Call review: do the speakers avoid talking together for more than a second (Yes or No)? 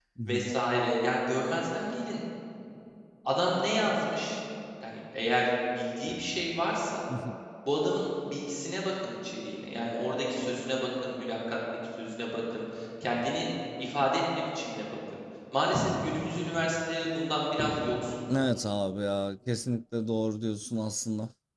Yes